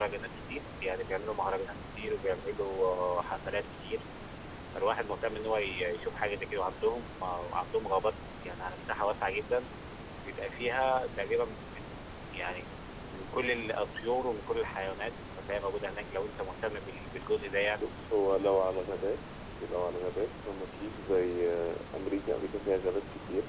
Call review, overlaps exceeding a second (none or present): none